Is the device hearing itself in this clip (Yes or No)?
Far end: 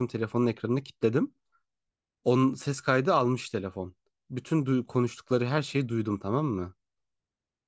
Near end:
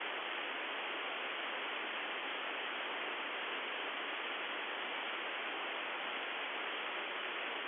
No